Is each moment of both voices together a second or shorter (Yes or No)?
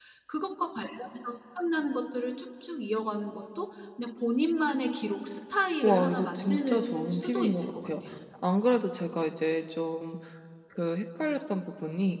No